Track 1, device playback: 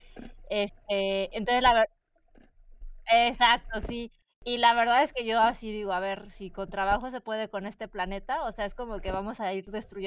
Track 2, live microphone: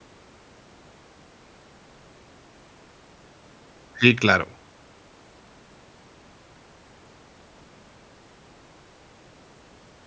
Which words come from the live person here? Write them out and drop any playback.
Sí, claro.

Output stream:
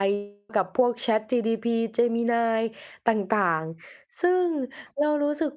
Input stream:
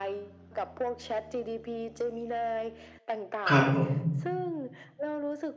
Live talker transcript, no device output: ครับผม

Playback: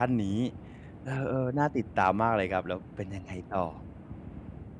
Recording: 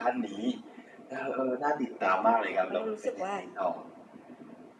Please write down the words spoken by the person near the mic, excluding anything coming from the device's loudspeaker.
เพราะเรารู้สึกว่า

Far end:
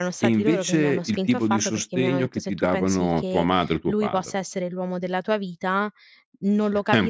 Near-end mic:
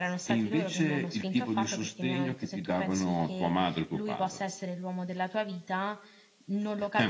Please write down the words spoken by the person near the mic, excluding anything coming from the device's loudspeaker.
none

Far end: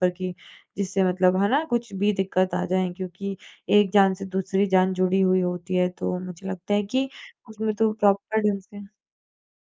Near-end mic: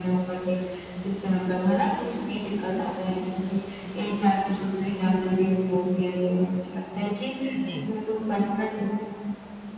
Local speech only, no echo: जी।

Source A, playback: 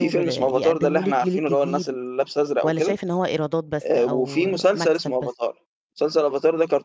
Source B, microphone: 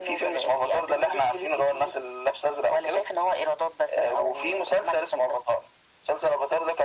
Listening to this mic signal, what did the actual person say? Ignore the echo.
none

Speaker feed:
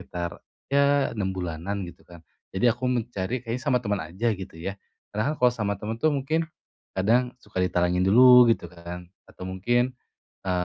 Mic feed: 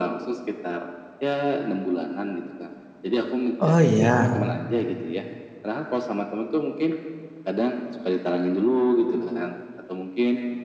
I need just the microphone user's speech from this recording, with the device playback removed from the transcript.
Oh, iya.

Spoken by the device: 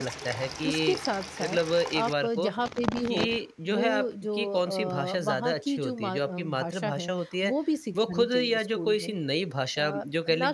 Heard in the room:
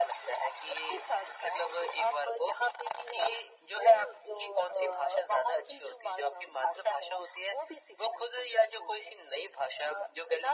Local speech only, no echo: none

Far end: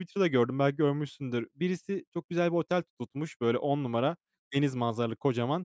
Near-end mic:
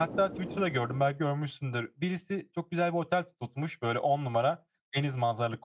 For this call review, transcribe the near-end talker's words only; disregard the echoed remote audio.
none

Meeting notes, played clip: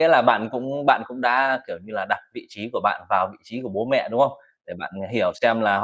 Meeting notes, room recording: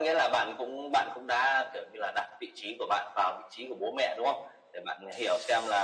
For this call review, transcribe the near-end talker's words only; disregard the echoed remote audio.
none

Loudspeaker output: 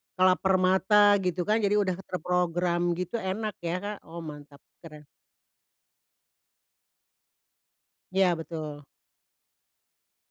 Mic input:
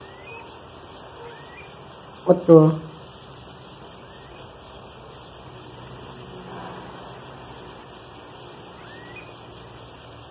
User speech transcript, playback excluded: Betul.

